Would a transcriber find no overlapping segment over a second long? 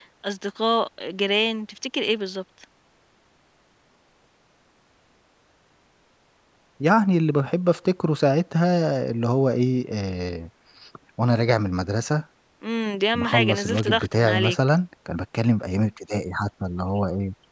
No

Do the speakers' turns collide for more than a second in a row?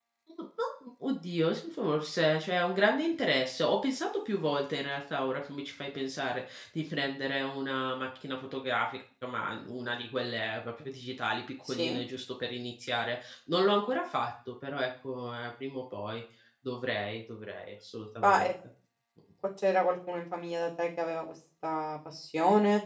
No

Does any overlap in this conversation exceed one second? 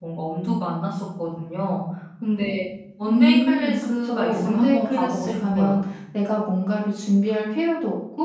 Yes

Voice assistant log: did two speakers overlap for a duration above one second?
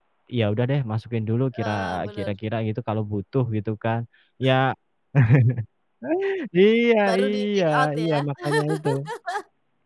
Yes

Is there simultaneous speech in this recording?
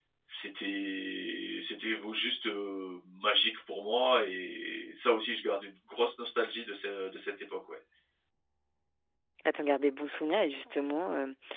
No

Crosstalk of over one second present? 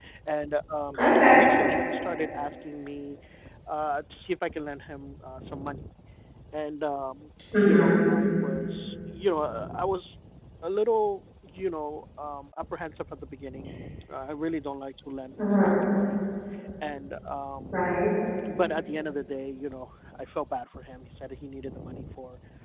No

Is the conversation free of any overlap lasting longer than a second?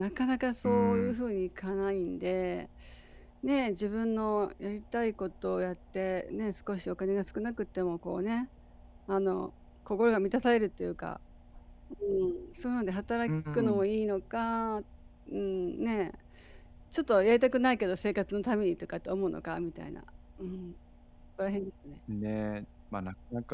Yes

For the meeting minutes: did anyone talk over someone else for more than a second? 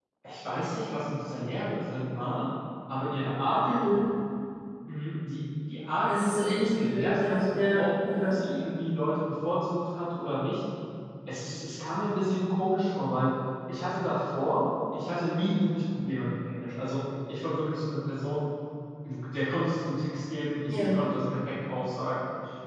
Yes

